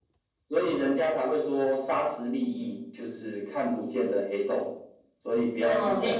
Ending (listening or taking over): taking over